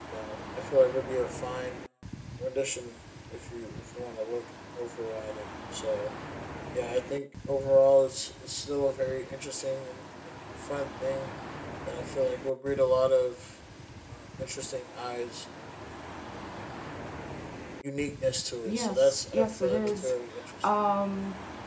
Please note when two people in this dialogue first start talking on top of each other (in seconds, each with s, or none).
18.6 s